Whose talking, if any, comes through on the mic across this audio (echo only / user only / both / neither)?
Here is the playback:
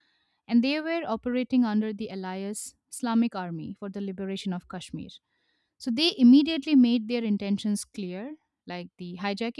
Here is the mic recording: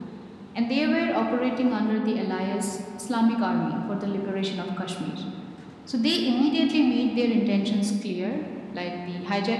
echo only